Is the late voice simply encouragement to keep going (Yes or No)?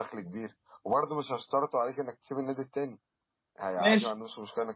Yes